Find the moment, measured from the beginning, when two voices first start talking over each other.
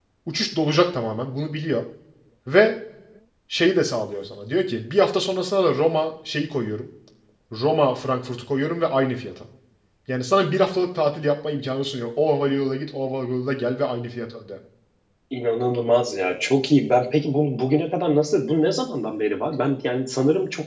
none

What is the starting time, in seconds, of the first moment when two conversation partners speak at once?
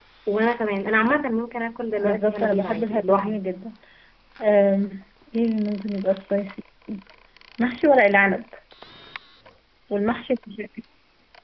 2 s

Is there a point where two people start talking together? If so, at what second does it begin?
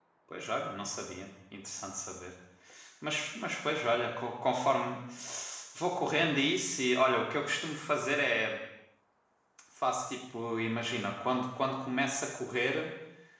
none

